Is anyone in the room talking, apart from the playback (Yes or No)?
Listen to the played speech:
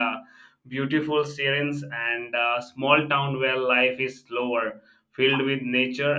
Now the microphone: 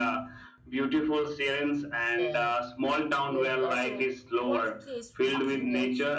Yes